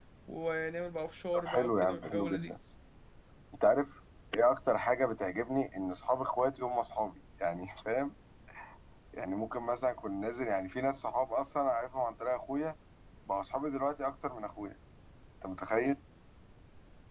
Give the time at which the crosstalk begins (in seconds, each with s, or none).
1.3 s